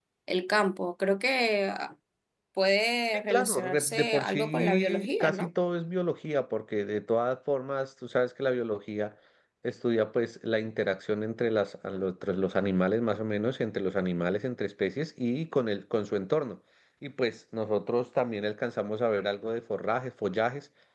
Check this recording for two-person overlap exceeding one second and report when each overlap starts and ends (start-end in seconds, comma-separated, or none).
3.1-5.5